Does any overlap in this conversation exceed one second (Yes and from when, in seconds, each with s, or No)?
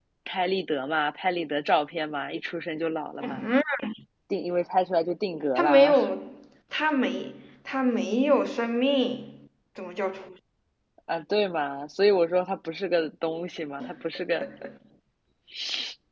No